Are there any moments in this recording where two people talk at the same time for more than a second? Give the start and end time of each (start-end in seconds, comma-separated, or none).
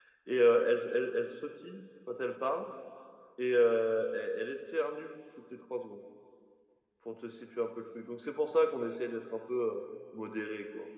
none